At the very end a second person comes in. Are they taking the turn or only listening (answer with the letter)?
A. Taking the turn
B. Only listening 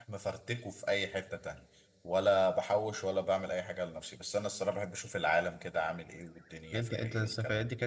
A